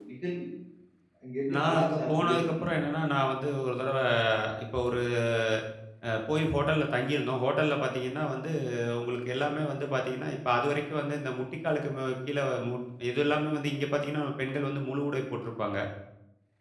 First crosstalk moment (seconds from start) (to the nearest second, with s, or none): 2 s